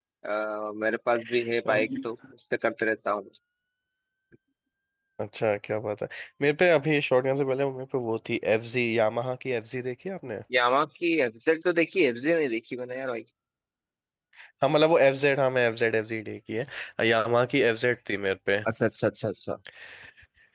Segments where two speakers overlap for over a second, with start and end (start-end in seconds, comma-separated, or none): none